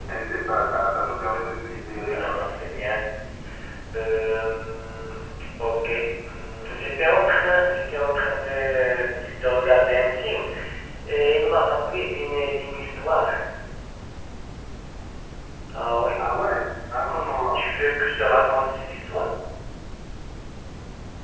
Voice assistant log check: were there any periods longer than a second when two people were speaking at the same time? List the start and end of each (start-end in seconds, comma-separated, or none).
none